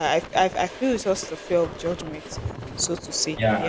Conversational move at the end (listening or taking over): taking over